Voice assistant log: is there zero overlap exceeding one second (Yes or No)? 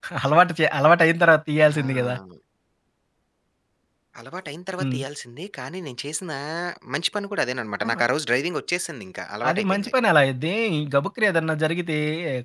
Yes